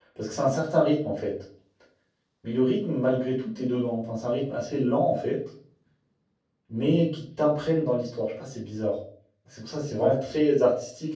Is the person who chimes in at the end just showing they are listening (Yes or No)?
Yes